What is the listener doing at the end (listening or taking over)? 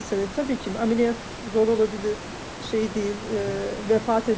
listening